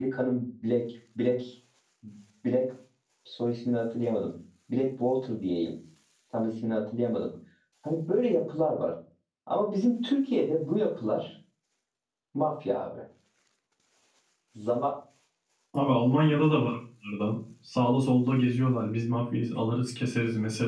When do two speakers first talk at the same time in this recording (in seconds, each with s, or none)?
none